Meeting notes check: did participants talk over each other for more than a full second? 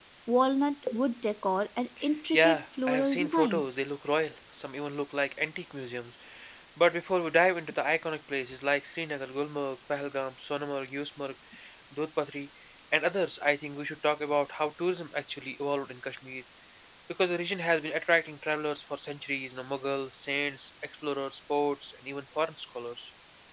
Yes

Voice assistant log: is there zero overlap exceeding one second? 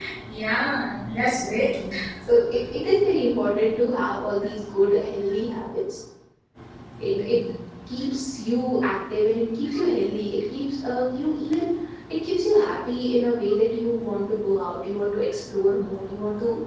Yes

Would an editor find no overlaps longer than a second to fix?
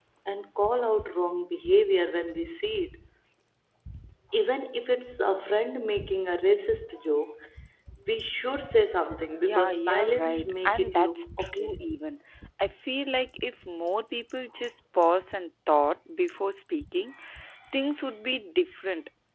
No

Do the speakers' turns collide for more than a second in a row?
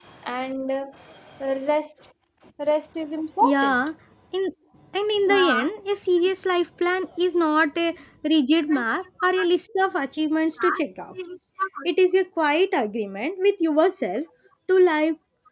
No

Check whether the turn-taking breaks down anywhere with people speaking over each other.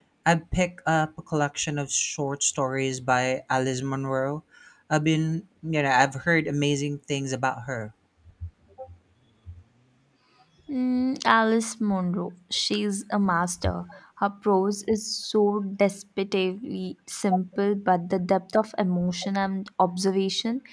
No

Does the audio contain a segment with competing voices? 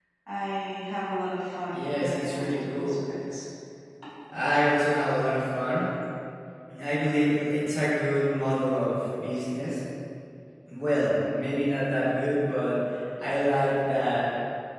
Yes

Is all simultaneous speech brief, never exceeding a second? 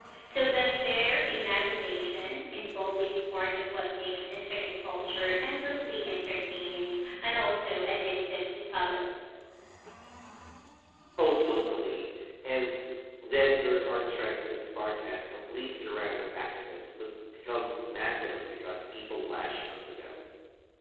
Yes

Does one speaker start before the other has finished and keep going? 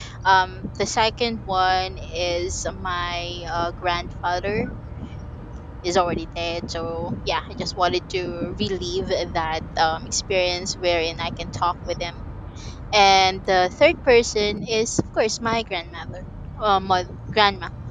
No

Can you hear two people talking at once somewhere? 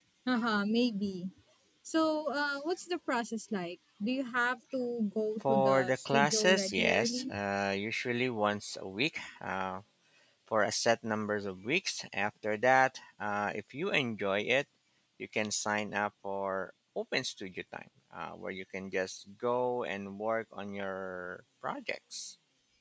Yes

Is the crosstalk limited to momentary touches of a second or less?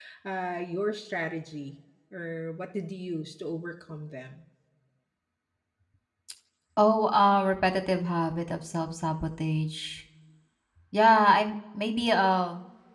Yes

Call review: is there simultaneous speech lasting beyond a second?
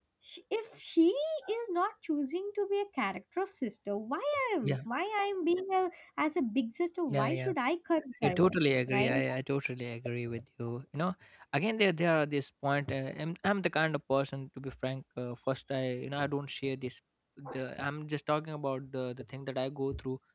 No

